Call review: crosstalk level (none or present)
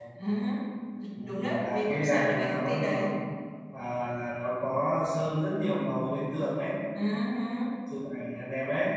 present